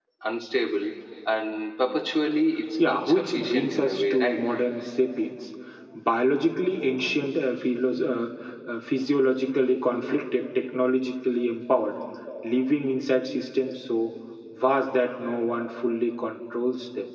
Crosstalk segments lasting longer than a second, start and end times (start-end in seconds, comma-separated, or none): 2.8-4.4